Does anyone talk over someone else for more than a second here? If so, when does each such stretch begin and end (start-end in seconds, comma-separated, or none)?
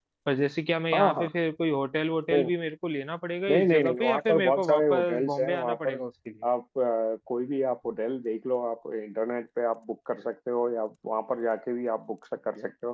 3.5-6.0